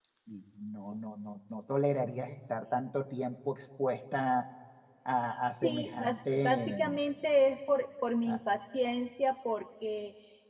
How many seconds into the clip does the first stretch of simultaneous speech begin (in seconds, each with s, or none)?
5.5 s